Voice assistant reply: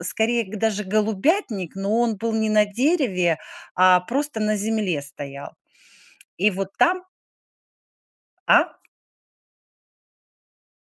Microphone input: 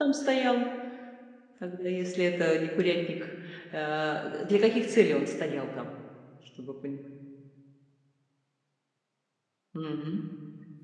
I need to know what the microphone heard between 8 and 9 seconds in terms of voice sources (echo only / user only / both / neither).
neither